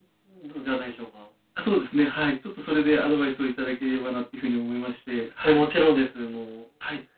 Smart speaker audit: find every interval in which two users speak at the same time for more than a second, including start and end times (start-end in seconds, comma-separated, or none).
none